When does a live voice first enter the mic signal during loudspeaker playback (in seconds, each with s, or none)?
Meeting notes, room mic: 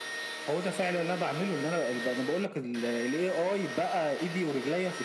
none